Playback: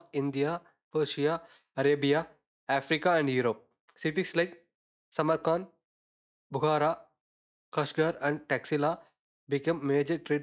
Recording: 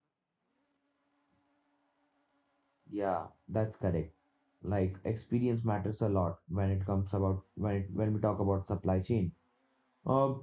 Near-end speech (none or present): present